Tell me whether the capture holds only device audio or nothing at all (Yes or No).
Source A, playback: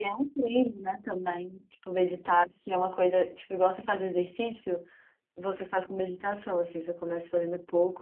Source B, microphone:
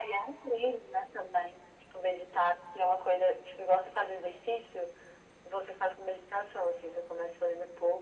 Yes